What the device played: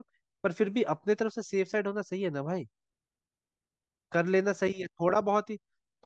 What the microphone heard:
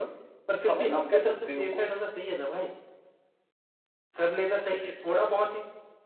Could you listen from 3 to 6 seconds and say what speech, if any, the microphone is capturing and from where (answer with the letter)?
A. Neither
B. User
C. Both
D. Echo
D